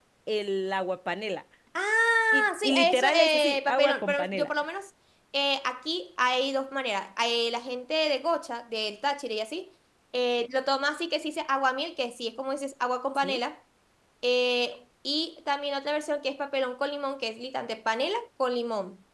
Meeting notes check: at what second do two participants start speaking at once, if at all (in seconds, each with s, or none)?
2.3 s